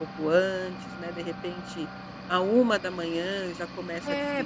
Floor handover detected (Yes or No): Yes